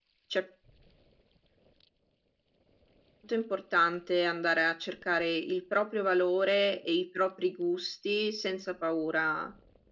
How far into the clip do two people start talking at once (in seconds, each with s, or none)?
none